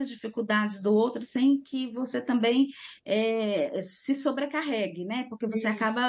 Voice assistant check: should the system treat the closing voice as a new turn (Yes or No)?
No